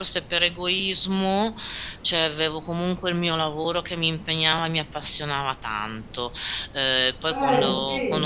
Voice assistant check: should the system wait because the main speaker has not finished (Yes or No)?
Yes